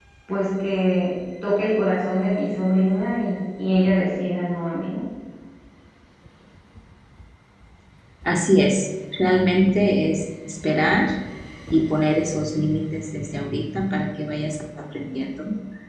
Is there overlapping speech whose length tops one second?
No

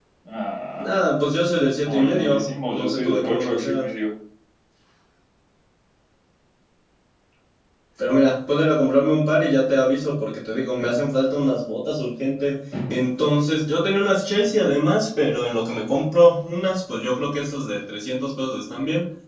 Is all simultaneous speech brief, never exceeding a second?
No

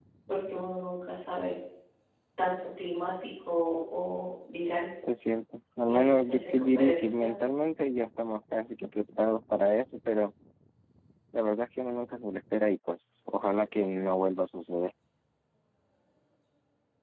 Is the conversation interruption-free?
No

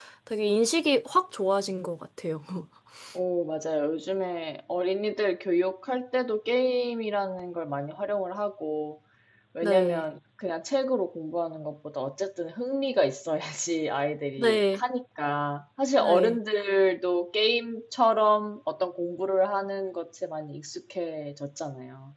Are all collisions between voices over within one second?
Yes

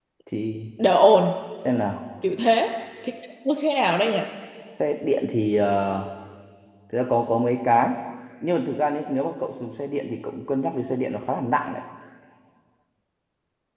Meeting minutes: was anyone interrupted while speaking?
No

